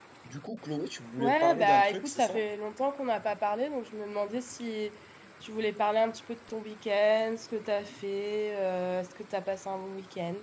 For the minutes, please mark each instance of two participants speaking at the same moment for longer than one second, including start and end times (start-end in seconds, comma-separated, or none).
1.2-2.4